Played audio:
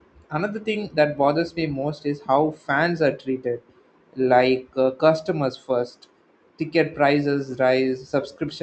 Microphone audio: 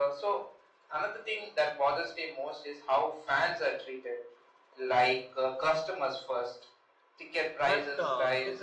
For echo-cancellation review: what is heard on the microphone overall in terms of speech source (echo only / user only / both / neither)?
both